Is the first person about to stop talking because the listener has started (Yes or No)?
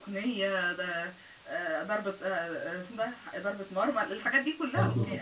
Yes